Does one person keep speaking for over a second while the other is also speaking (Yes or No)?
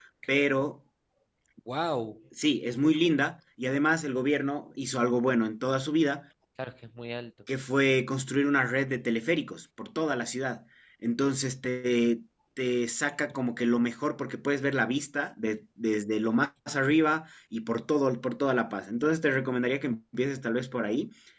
No